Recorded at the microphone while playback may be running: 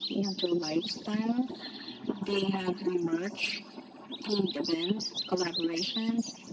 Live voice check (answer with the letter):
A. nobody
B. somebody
A